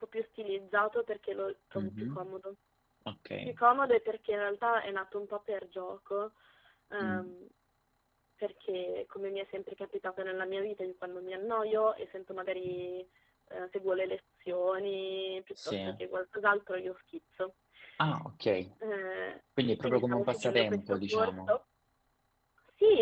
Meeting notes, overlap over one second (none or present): present